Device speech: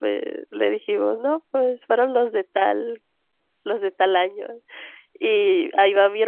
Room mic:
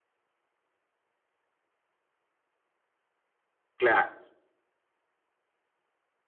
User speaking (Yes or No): Yes